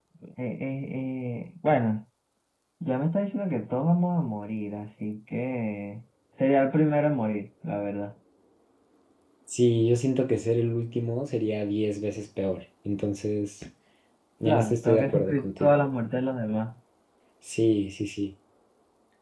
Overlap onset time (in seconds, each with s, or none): 14.4 s